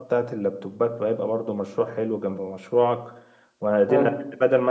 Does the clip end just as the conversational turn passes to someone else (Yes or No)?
No